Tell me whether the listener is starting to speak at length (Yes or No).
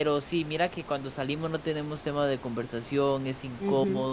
No